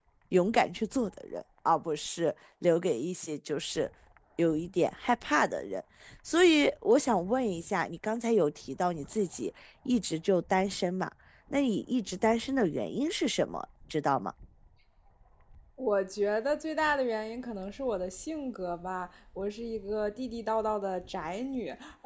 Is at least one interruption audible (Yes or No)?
No